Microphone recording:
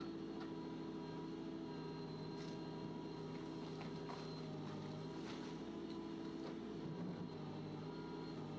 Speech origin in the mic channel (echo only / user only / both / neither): neither